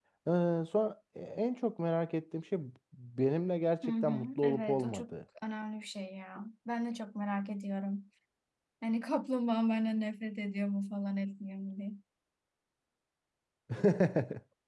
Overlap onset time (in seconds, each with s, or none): 3.8 s